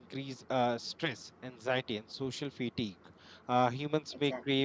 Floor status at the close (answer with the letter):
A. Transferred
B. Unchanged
B